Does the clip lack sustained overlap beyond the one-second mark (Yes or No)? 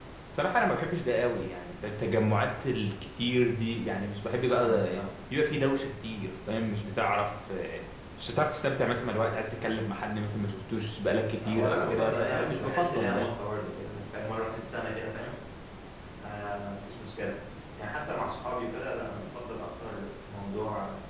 No